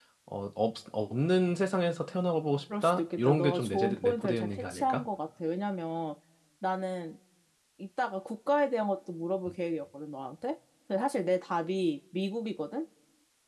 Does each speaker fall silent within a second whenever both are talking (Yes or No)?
No